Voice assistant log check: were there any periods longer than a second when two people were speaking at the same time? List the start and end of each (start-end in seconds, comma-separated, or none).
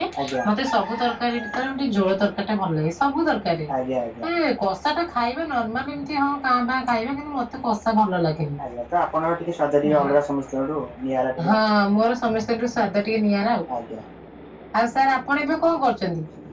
none